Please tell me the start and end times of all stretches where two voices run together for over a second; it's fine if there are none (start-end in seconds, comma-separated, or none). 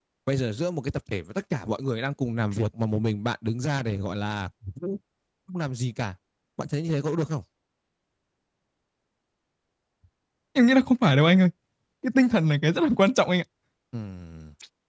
none